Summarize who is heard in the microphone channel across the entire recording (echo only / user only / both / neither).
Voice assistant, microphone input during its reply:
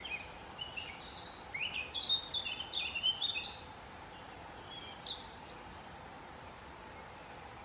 neither